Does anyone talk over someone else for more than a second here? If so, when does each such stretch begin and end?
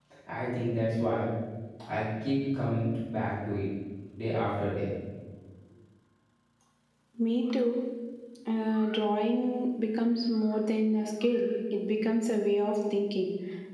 none

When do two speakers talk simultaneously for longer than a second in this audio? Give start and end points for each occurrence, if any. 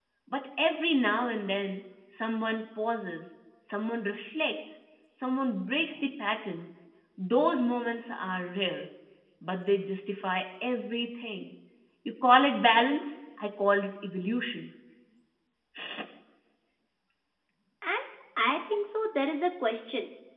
none

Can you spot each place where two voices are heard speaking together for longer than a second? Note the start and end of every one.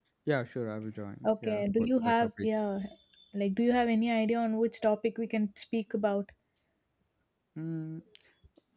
1.2-2.5

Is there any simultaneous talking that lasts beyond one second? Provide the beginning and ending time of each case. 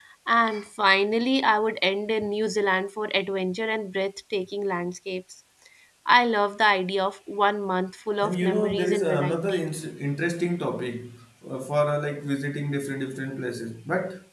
8.2-9.7

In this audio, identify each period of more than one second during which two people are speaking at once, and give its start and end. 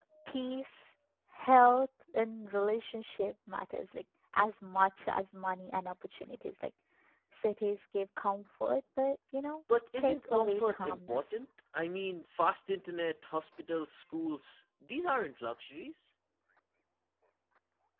10.0-11.2

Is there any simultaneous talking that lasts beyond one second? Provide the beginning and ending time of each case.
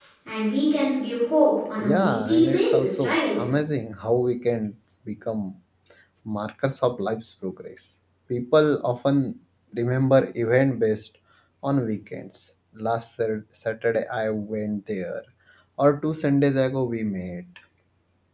1.8-3.4

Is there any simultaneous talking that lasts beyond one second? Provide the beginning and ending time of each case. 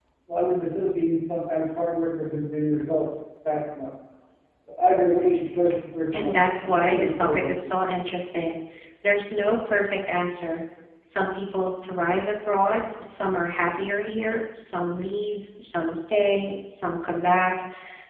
6.1-7.9

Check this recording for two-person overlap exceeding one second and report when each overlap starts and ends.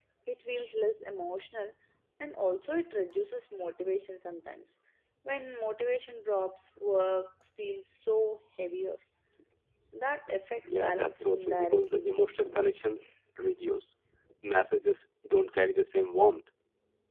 10.7-12.1

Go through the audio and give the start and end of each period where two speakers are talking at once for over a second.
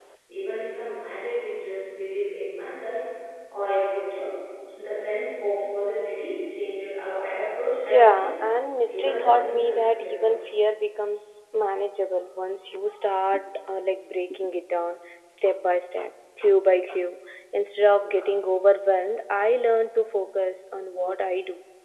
8.9-10.3

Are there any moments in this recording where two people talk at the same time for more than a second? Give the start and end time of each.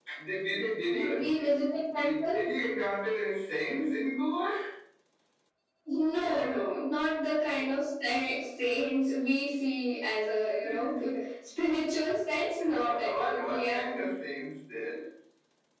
0.8-2.4, 12.6-13.9

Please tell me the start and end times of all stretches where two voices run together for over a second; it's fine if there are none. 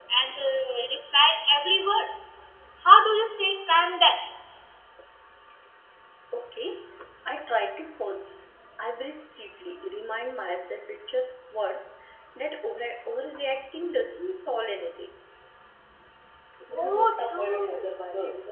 16.7-17.9

